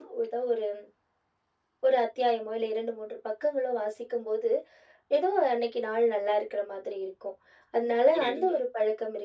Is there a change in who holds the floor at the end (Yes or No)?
No